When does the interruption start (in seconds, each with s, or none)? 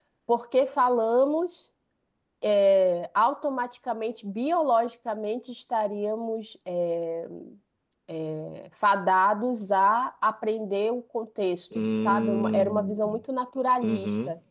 11.8 s